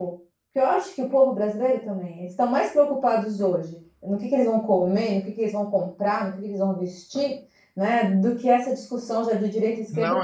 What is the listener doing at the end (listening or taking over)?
taking over